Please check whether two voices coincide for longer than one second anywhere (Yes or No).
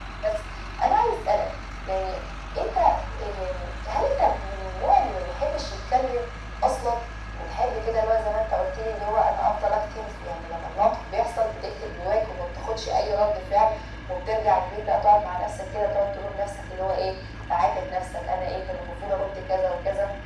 No